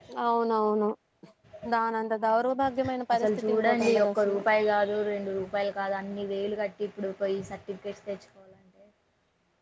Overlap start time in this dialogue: 3.1 s

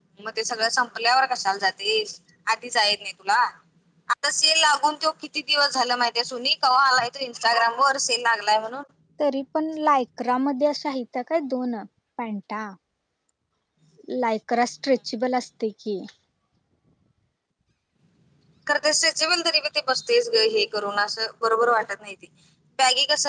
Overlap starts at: none

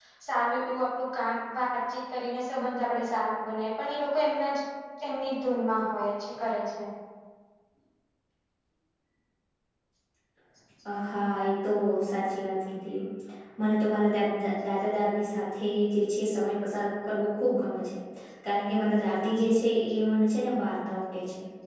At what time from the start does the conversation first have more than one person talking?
none

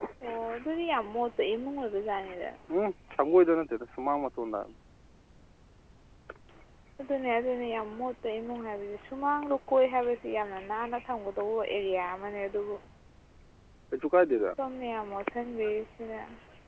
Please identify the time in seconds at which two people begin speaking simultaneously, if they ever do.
none

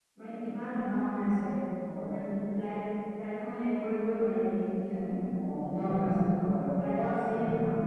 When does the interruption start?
5.7 s

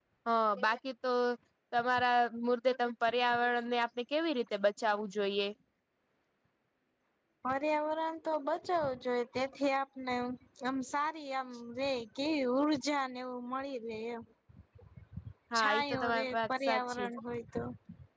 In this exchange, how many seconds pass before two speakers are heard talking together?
15.6 s

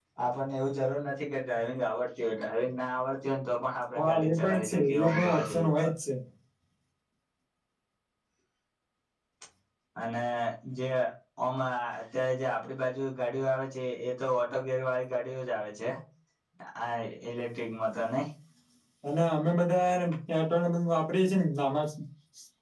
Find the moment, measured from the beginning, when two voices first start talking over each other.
4.0 s

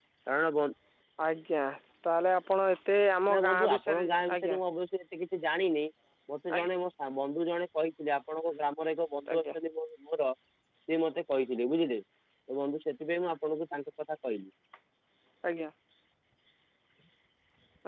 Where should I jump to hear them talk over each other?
3.3 s

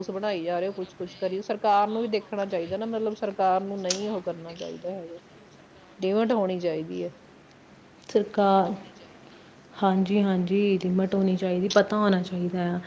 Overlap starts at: none

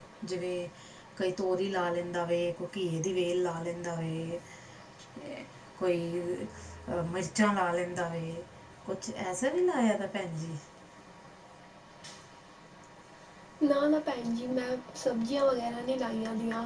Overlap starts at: none

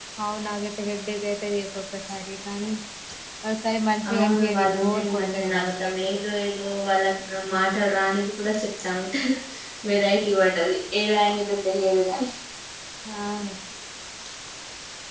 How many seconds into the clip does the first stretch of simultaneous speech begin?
4.1 s

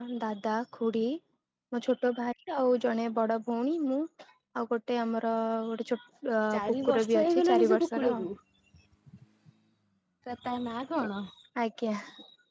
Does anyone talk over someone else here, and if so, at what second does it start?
6.5 s

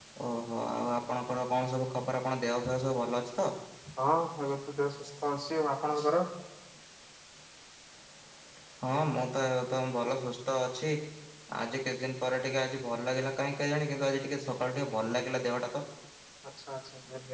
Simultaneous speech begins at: none

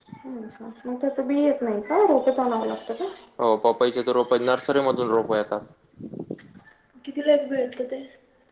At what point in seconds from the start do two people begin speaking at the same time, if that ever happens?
none

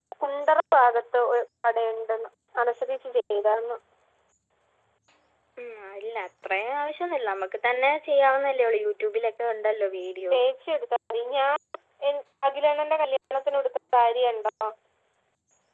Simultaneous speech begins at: none

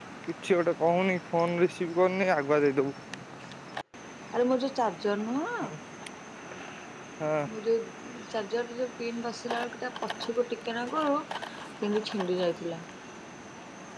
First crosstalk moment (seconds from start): none

